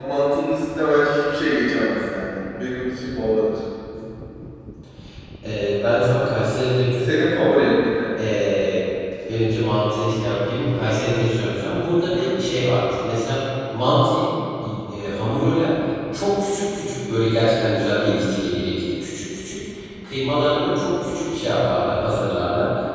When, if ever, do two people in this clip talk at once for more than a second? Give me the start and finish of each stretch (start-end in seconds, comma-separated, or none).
none